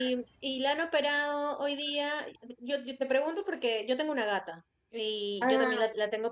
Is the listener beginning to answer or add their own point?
No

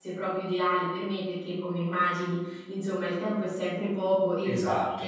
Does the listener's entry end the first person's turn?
Yes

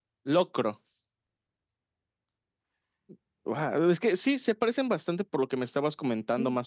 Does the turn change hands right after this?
Yes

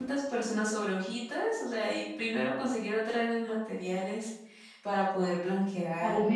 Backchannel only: No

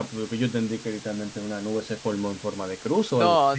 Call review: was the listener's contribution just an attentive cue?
No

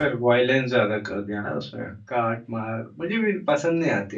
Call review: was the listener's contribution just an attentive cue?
Yes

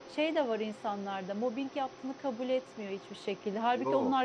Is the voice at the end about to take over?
No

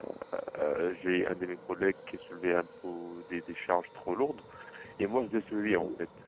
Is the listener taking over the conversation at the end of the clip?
No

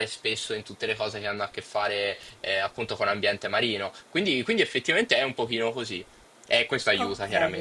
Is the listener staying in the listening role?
No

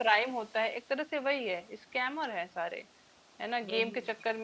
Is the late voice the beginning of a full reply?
No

